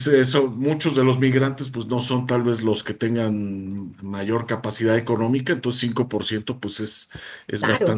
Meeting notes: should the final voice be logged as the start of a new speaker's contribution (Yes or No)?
No